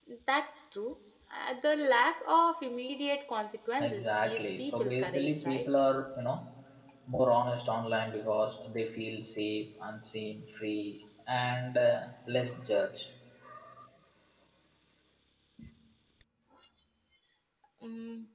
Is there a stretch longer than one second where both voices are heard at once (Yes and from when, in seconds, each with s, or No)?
Yes, from 3.8 s